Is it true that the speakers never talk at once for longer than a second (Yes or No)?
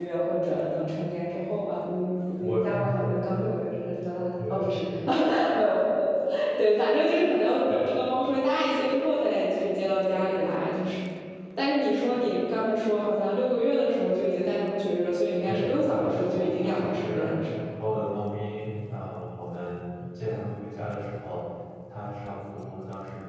No